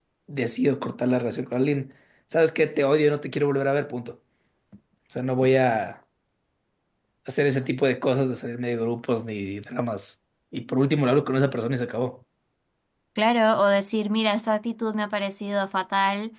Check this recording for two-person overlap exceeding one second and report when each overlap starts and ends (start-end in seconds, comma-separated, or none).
none